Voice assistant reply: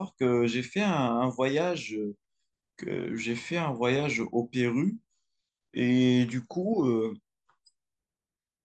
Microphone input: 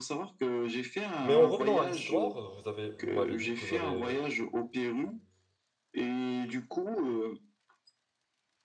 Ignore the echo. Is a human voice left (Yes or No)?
Yes